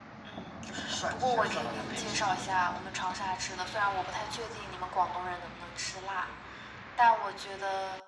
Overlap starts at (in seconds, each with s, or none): 1.1 s